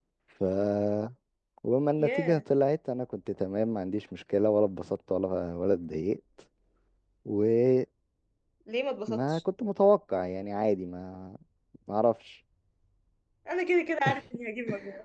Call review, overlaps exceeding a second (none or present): none